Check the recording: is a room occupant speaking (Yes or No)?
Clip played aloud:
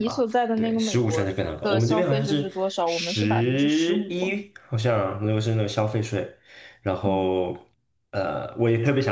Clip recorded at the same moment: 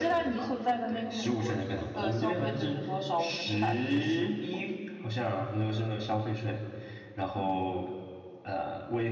No